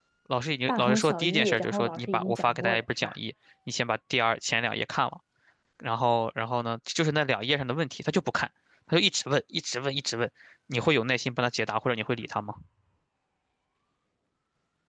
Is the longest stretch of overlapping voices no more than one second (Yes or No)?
No